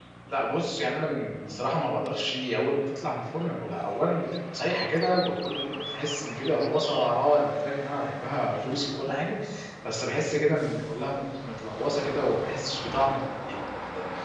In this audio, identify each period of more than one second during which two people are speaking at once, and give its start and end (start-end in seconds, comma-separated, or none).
none